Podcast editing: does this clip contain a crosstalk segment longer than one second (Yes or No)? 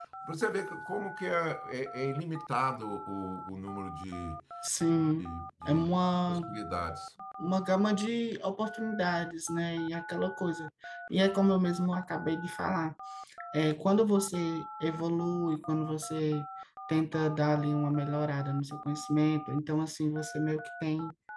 No